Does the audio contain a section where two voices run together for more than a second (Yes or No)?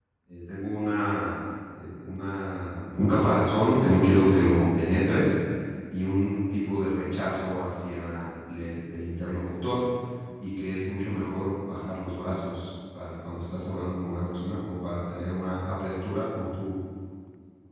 No